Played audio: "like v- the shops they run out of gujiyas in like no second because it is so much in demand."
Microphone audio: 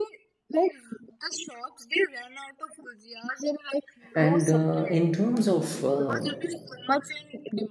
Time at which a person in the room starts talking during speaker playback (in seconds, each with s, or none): 4.1 s